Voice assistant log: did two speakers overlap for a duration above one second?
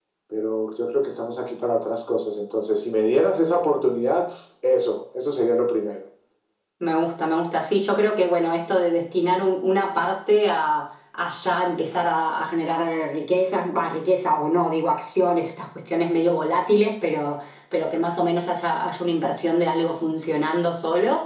No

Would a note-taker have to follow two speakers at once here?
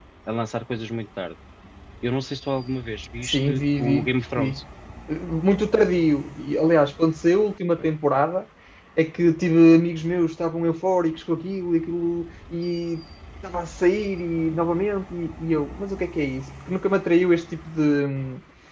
Yes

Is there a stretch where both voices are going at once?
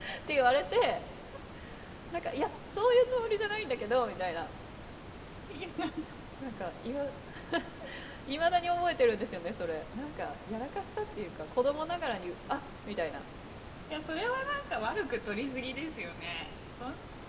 No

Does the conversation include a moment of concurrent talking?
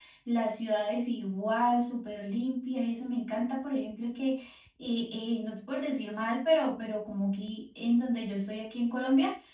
No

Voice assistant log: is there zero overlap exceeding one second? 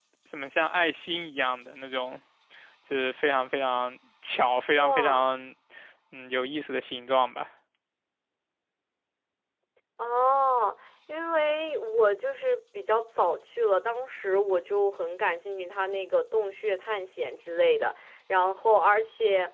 Yes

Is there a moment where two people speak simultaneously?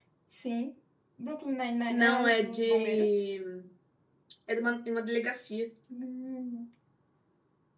Yes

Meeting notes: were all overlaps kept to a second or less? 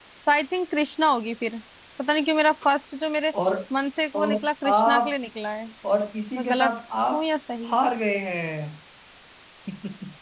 Yes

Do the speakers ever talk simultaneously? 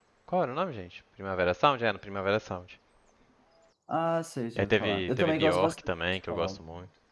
Yes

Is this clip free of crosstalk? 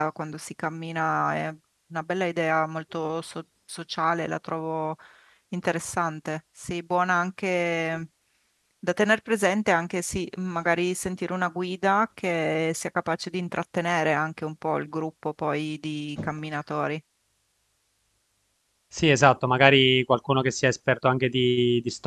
Yes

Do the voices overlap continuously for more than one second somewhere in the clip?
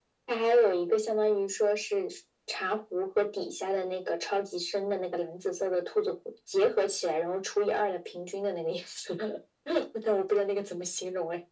No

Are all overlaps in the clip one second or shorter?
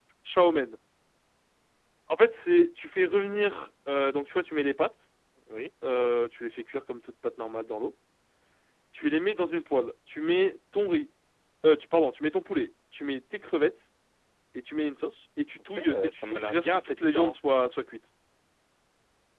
No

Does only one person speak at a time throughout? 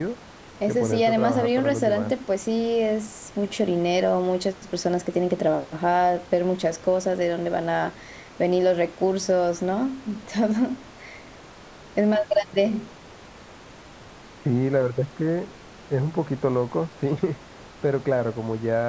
No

